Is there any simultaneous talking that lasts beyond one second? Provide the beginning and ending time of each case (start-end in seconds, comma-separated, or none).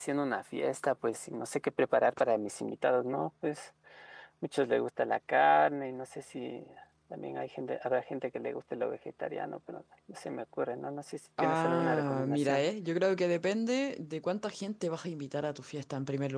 11.4-12.6